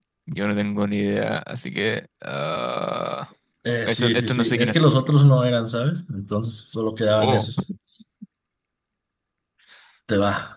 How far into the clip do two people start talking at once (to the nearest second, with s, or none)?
4 s